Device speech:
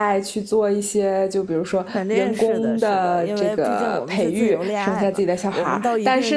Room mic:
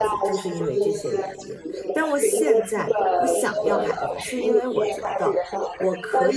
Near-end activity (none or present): present